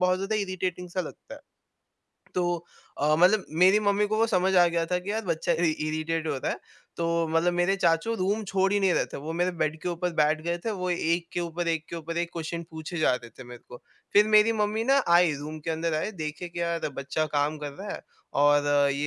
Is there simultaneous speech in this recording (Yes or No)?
No